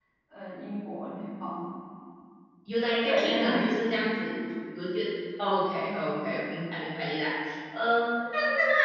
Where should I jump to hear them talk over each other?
3.0 s

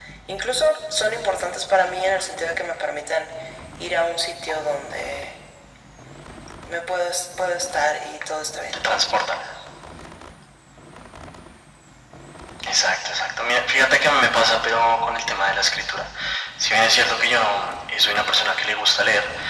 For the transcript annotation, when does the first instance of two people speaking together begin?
none

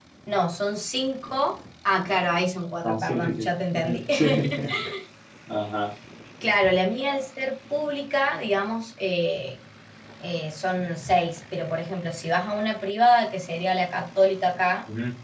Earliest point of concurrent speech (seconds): 2.8 s

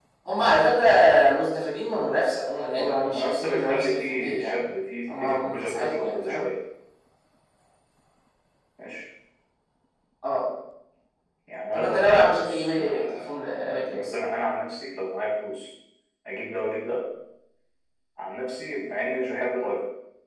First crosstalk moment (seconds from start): 2.8 s

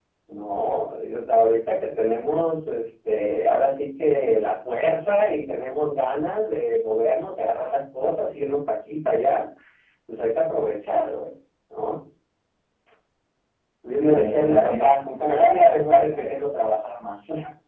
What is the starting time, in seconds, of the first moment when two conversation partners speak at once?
14.1 s

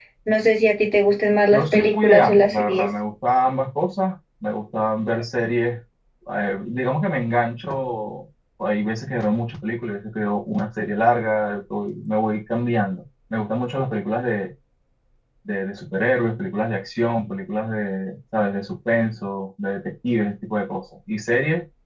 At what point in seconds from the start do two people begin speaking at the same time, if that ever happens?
1.5 s

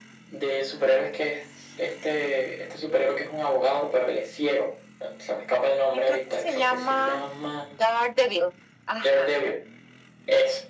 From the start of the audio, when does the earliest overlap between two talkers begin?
5.9 s

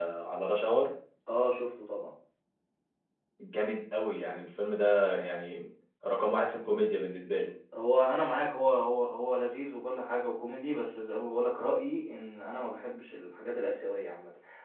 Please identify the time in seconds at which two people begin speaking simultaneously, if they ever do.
none

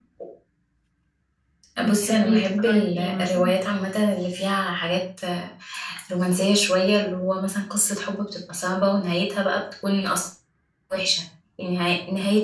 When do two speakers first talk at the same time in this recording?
1.9 s

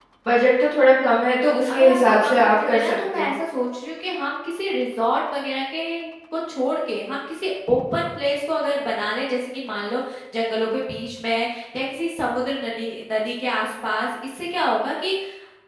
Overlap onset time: 1.7 s

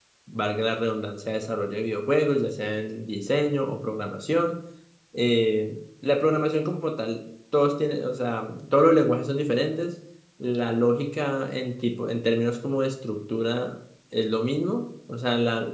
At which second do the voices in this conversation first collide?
none

